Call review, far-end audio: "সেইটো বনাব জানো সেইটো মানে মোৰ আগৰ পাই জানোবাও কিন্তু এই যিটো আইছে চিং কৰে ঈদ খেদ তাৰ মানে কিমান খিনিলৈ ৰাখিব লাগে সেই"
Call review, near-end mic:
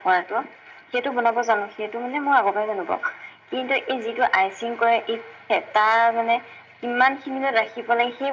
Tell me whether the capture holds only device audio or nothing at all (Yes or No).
Yes